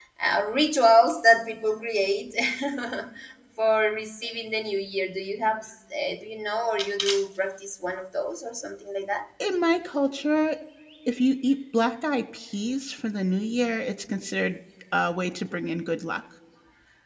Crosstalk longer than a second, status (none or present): none